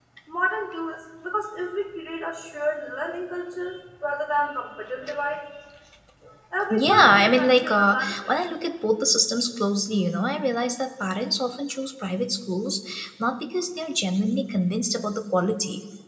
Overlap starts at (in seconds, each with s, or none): 6.7 s